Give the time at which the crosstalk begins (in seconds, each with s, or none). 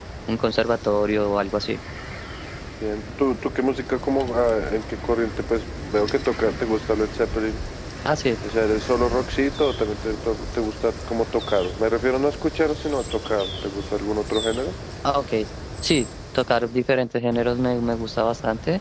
none